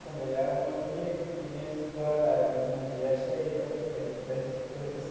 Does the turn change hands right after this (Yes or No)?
Yes